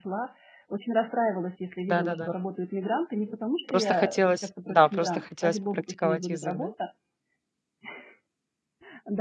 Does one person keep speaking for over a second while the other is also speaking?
Yes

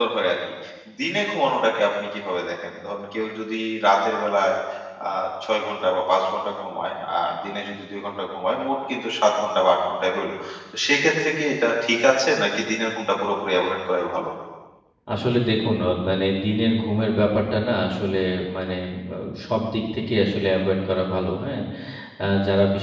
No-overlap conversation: Yes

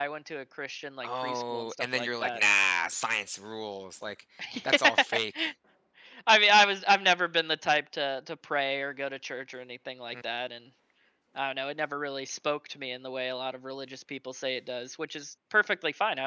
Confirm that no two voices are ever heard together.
No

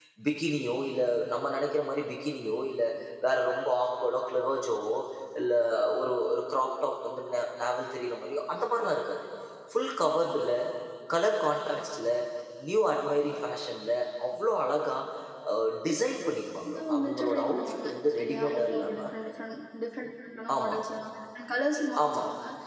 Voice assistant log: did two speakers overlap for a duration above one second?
Yes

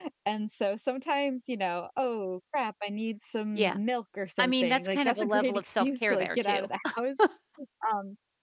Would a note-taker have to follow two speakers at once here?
Yes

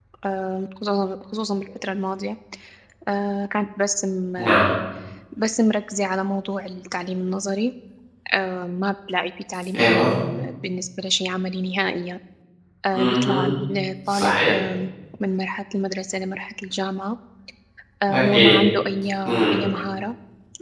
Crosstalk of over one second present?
No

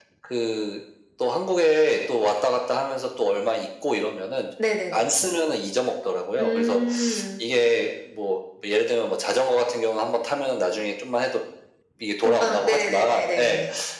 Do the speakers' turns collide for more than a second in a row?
Yes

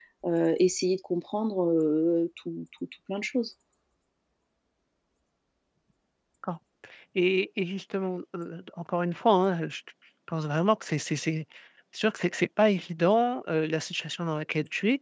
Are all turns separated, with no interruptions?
Yes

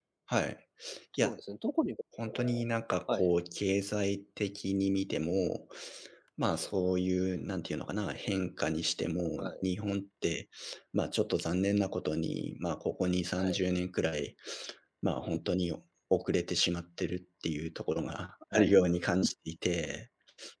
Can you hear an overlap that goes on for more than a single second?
No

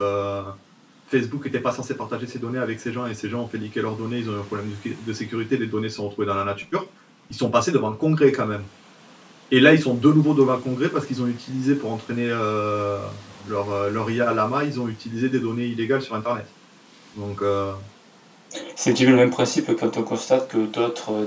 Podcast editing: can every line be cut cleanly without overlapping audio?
Yes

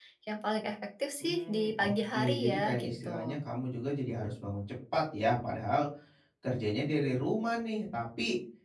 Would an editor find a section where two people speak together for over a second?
Yes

